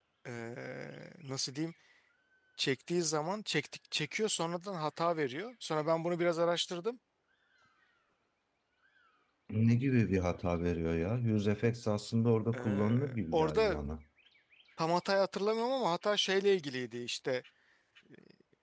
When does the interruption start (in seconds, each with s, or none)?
12.5 s